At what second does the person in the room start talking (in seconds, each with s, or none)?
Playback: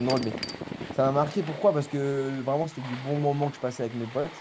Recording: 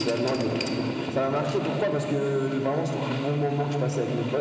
none